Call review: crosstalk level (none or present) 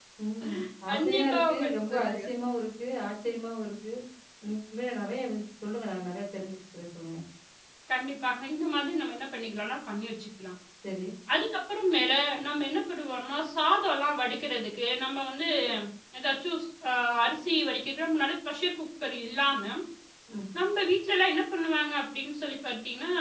present